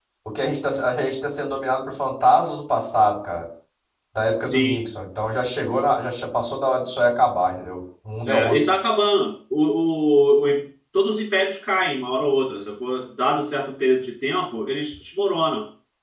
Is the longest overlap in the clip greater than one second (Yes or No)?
No